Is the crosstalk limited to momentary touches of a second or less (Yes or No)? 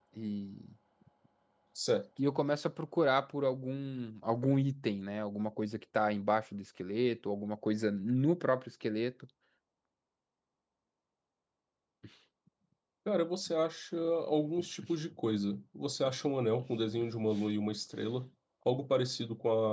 Yes